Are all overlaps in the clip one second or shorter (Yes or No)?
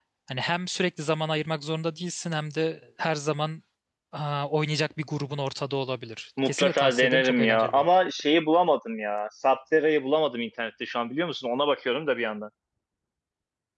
No